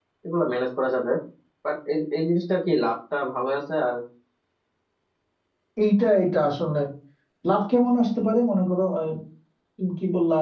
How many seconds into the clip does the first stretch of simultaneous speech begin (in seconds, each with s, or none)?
none